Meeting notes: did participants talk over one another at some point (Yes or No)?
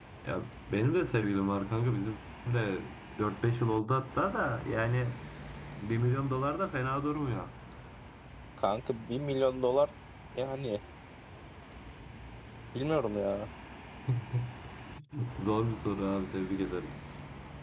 No